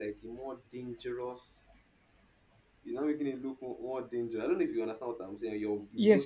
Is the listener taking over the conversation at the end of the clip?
Yes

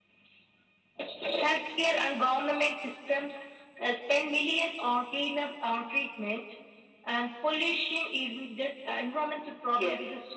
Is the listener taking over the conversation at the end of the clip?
No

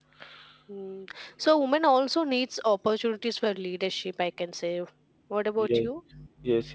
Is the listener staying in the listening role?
No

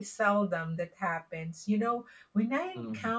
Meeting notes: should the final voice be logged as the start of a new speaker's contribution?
No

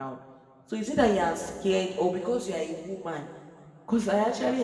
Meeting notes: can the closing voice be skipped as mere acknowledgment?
Yes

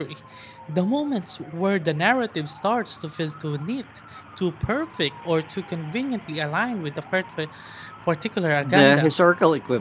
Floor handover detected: Yes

